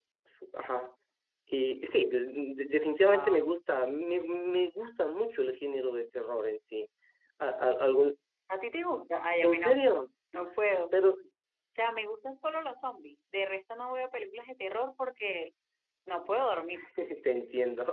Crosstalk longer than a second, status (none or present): none